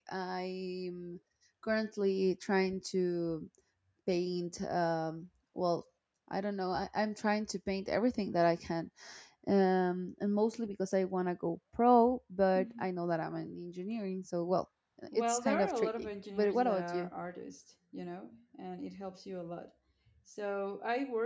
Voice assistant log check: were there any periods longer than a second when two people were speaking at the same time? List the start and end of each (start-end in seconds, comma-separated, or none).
15.1-17.1